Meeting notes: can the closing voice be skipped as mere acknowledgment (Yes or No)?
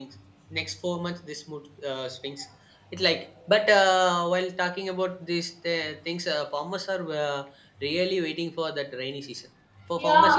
Yes